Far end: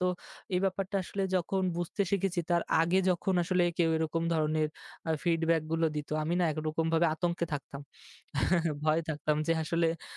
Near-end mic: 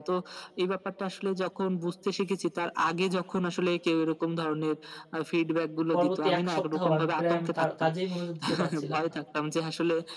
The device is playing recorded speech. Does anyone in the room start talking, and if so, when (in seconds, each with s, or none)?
5.9 s